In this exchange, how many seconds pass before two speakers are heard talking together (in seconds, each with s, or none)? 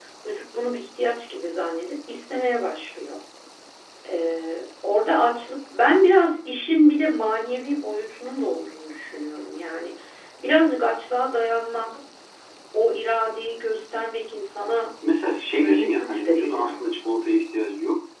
15.4 s